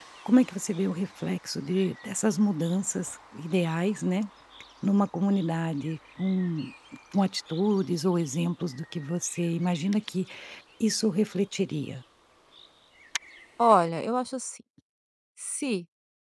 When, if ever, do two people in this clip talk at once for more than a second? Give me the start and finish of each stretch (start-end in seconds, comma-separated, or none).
none